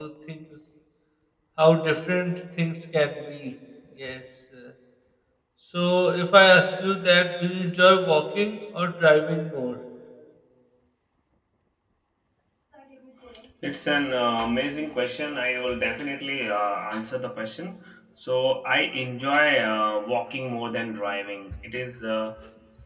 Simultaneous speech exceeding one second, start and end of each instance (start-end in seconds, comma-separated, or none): none